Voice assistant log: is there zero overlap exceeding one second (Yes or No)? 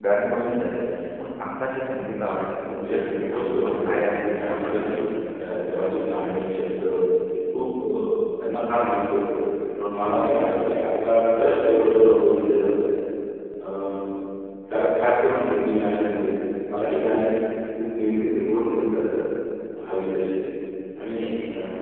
No